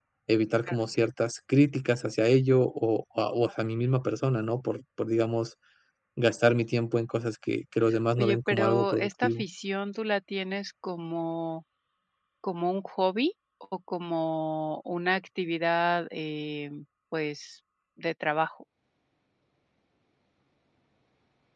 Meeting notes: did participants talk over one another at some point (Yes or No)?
Yes